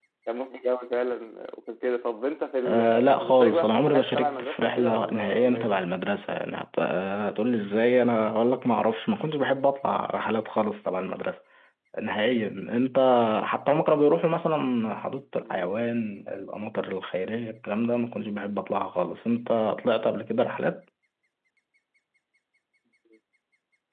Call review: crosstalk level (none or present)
present